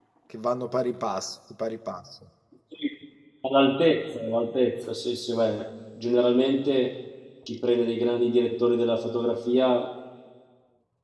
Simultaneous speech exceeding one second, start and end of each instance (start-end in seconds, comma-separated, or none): none